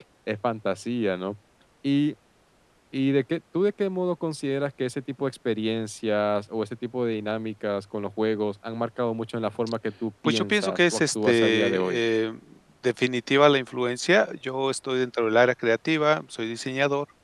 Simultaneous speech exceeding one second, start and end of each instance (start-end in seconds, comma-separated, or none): 10.2-12.0